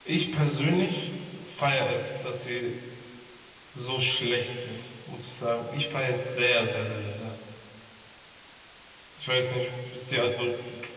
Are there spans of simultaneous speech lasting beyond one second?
No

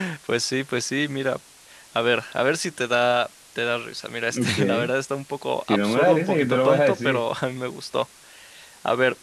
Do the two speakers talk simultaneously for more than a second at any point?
Yes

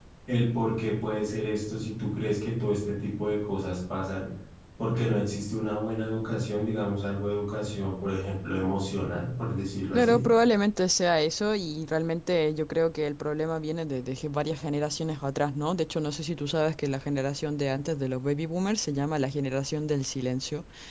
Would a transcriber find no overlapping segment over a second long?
Yes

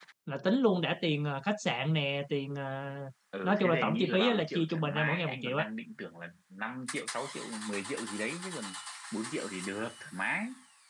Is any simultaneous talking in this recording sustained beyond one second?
Yes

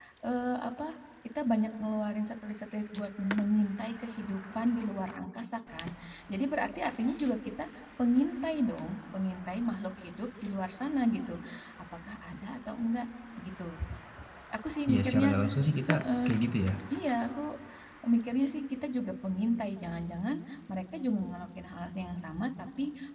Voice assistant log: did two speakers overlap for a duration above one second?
No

